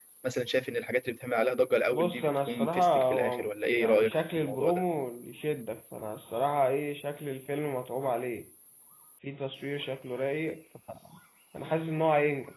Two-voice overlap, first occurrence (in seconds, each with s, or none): 1.9 s